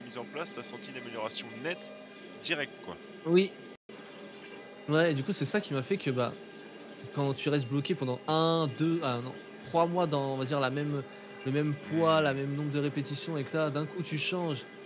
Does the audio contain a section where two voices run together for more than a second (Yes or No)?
No